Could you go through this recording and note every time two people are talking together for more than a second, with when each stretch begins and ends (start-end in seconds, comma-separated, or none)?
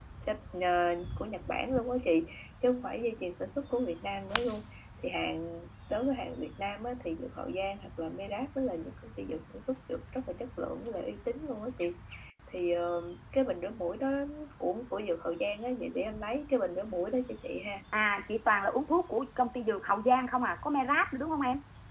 none